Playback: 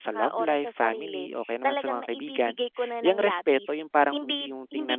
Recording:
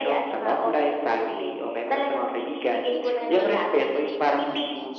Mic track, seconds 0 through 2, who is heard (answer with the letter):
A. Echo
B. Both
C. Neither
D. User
A